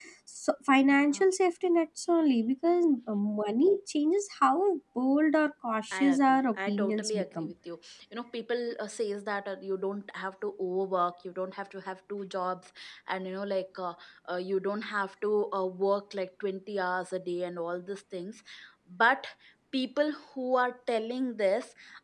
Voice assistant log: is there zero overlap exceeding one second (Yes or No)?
No